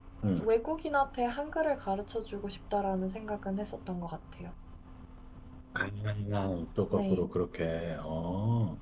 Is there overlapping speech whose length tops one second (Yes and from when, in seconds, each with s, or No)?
No